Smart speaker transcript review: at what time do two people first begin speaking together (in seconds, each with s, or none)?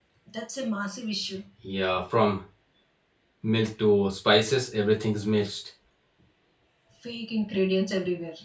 none